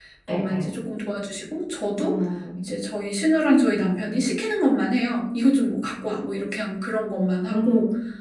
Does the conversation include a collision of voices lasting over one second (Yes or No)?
No